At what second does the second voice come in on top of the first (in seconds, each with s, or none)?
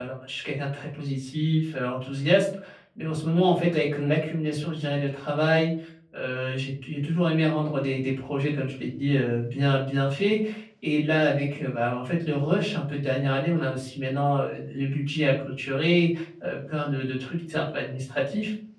none